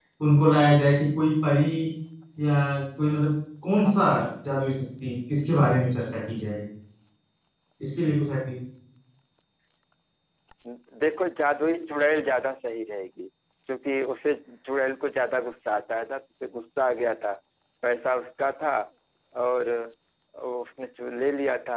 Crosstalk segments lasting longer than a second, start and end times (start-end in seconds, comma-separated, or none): none